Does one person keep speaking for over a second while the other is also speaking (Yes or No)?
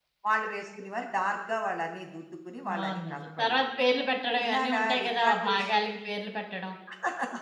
Yes